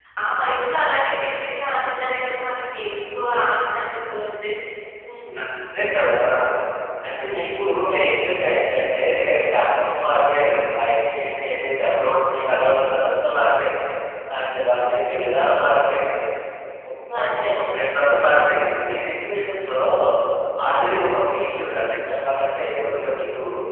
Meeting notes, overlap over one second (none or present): none